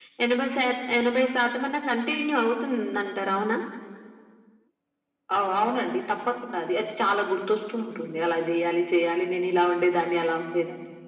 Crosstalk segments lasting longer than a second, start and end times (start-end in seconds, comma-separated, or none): none